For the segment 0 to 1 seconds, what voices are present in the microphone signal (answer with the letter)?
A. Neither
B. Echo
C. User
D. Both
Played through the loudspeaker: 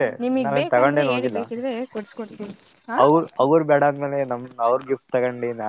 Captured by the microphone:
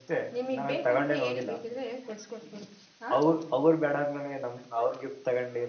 B